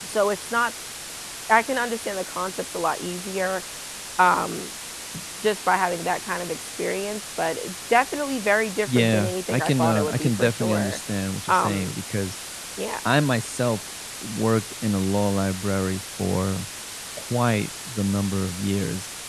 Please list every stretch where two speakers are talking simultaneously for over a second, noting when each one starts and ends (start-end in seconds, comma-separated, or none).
8.9-11.0